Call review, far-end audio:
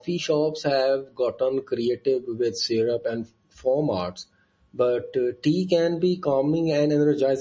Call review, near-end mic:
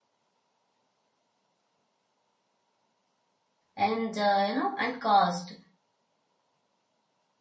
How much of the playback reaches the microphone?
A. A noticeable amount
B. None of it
B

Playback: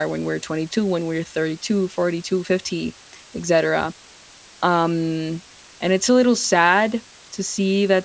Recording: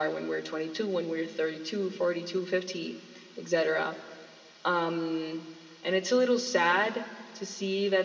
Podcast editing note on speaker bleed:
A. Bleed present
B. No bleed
A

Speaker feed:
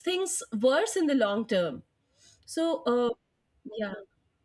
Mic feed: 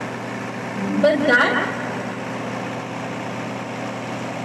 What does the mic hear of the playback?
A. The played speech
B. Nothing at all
B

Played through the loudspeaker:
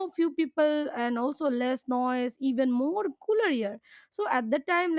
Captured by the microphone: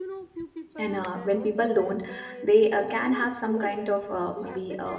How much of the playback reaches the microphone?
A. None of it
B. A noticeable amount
B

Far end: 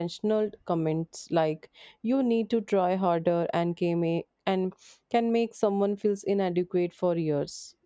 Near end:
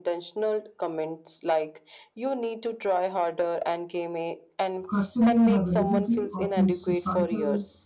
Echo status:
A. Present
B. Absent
A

